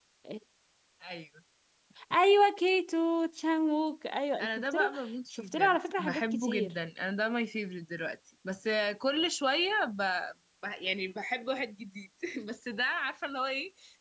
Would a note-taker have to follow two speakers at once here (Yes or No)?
Yes